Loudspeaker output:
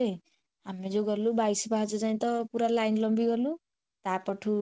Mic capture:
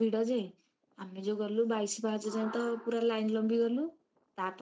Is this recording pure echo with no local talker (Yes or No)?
No